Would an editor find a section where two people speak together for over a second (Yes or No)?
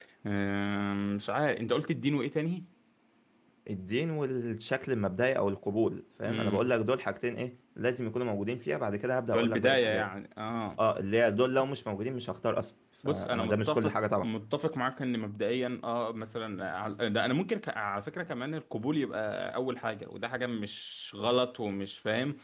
Yes